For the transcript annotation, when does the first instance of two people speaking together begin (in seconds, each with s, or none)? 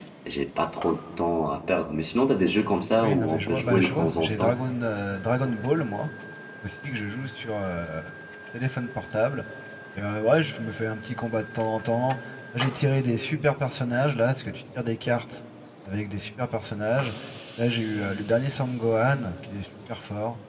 3.0 s